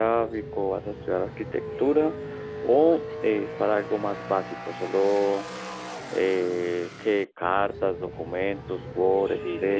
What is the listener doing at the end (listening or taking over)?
taking over